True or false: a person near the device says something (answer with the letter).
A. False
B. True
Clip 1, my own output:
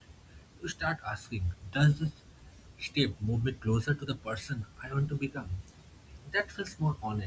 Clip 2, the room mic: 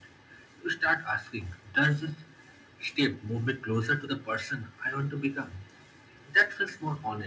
A